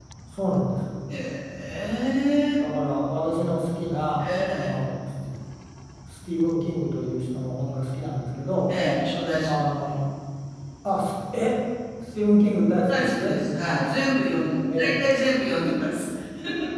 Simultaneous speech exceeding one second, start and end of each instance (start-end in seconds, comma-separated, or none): none